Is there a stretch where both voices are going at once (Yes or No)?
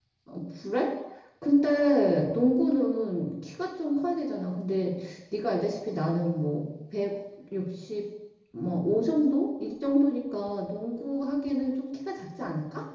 No